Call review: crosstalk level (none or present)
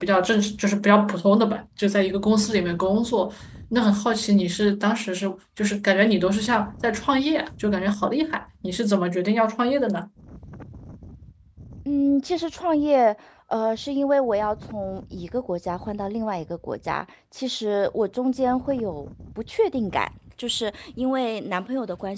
none